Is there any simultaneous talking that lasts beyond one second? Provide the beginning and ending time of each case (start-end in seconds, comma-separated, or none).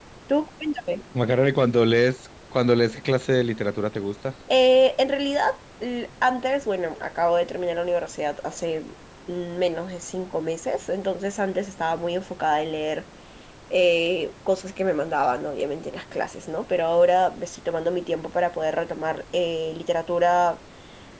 none